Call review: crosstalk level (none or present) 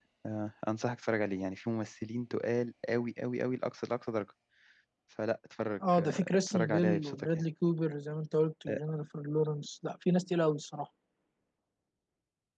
present